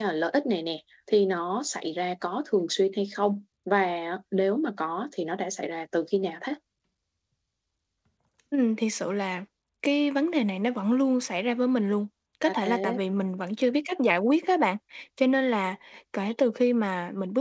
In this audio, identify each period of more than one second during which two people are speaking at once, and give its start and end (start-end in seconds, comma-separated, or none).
none